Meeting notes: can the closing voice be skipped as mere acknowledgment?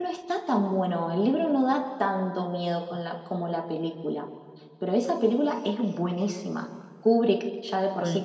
Yes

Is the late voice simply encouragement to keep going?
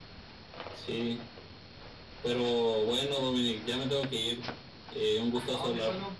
No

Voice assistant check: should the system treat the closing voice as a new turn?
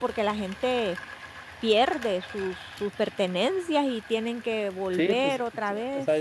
Yes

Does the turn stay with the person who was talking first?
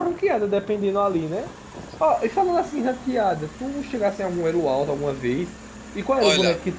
Yes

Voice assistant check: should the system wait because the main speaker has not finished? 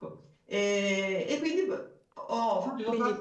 No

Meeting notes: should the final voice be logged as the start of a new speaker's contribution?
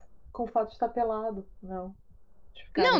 Yes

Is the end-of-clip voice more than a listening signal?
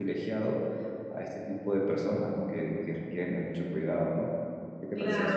Yes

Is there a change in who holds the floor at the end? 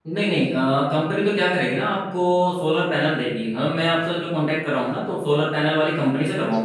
No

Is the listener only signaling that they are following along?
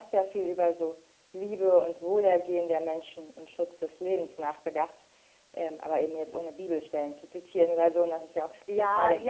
No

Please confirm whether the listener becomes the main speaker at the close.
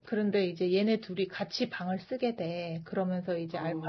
No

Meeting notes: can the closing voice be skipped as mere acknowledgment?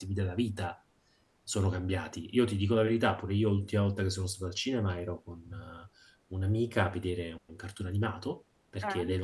Yes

